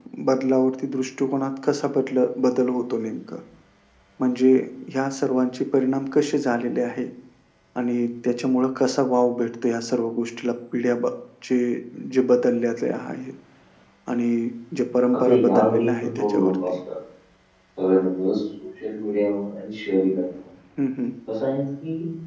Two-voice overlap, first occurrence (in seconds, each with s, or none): 15.1 s